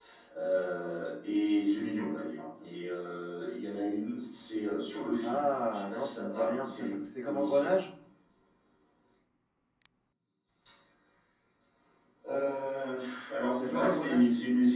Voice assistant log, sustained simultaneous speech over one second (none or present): present